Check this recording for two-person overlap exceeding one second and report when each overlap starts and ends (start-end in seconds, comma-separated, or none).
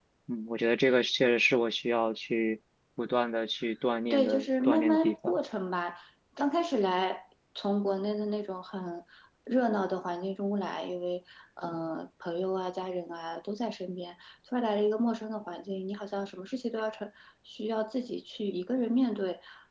4.1-5.4